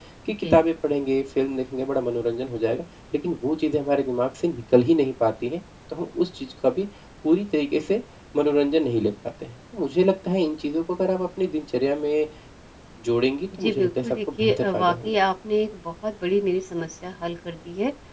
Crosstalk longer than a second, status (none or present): present